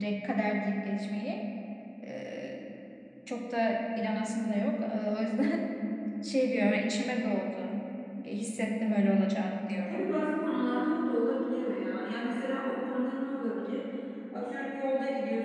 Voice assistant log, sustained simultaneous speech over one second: none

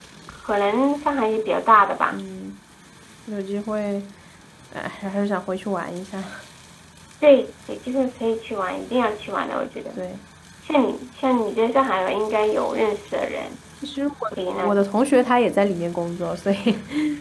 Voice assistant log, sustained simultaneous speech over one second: none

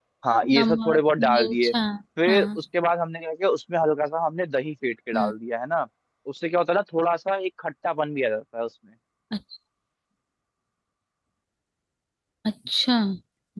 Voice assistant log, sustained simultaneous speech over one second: present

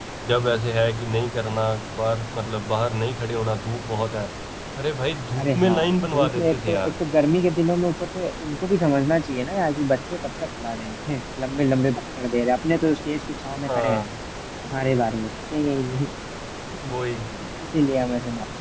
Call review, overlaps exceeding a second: present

